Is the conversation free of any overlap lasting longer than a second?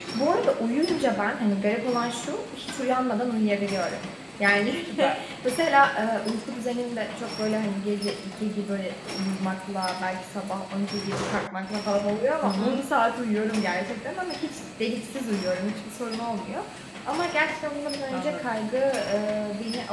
Yes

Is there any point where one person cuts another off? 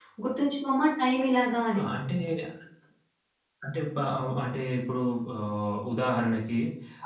No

